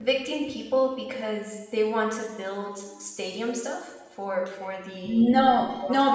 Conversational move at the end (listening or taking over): taking over